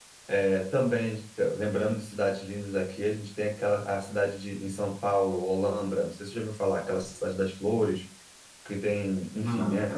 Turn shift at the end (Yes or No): No